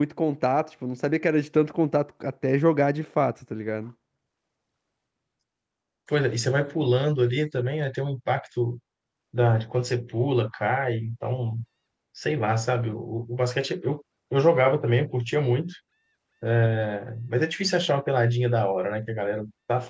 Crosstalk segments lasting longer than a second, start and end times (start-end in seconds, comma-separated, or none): none